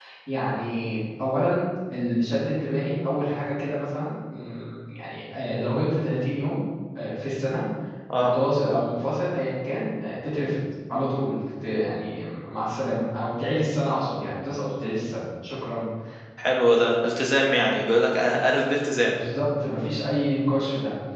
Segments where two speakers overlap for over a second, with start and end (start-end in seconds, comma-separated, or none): none